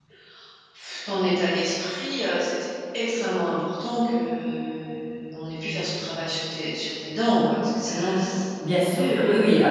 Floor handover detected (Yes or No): Yes